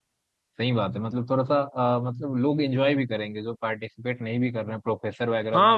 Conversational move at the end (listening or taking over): taking over